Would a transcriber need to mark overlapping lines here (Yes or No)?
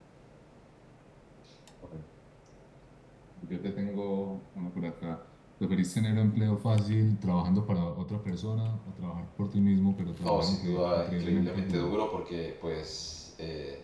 Yes